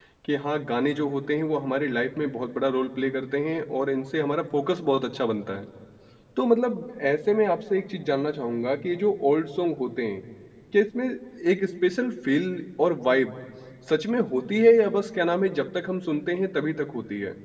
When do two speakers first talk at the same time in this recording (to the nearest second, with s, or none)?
none